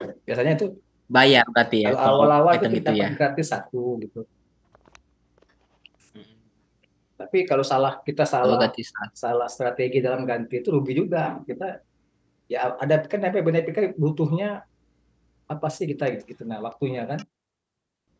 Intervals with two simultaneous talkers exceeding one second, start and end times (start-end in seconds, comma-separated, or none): 1.9-3.0